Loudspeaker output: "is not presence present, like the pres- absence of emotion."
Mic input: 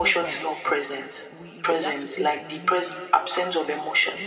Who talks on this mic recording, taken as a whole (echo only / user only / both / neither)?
both